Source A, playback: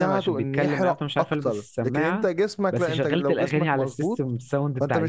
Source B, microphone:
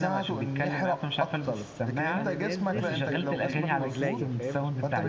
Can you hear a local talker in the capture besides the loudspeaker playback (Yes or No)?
Yes